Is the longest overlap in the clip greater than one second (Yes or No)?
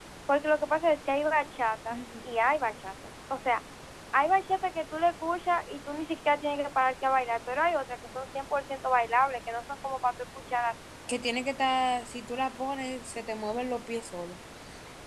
No